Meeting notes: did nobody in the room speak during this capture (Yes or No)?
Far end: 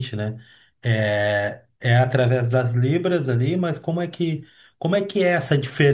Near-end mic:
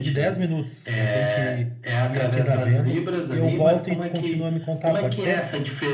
No